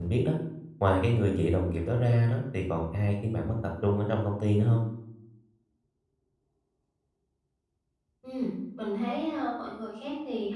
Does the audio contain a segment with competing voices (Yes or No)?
No